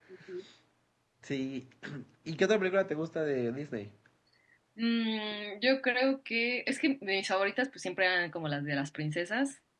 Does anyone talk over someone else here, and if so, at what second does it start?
none

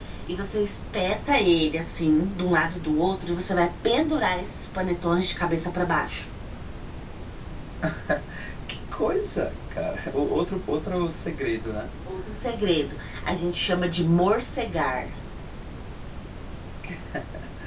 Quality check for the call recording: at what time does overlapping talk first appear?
none

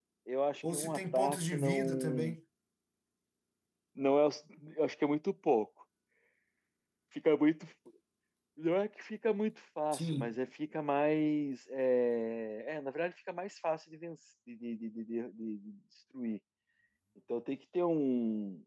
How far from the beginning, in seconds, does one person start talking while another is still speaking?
0.7 s

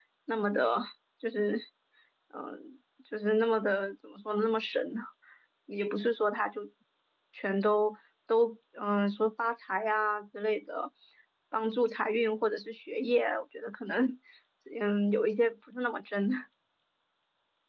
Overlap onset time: none

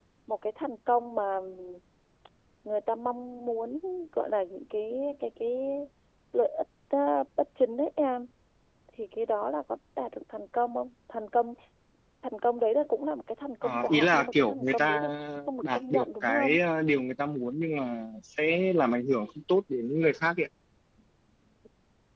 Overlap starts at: 13.6 s

